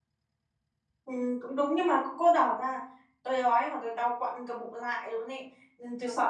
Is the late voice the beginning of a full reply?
No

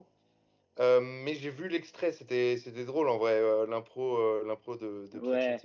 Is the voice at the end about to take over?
Yes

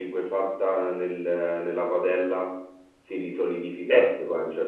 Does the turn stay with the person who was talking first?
Yes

